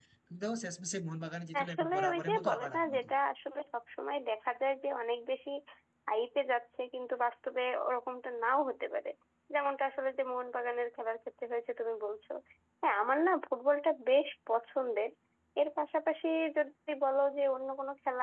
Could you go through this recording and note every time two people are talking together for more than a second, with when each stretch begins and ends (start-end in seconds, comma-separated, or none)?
1.6-3.0